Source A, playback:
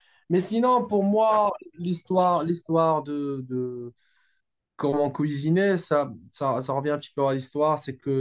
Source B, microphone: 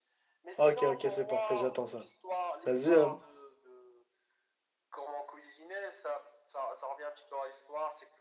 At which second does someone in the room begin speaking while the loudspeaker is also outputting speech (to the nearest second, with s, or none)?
1 s